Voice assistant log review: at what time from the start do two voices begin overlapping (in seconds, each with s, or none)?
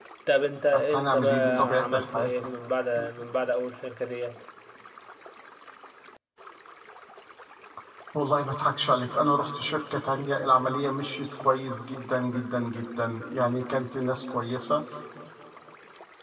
0.7 s